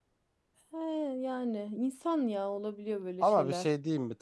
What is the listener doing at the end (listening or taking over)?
taking over